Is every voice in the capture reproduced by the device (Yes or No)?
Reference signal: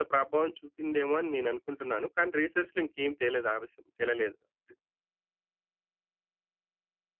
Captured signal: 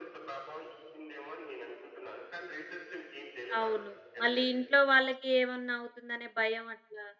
No